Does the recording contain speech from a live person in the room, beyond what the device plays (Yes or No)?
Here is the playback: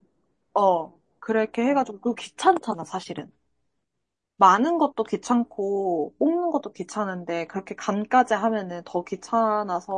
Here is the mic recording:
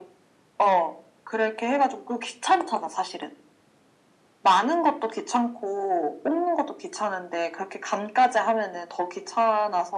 No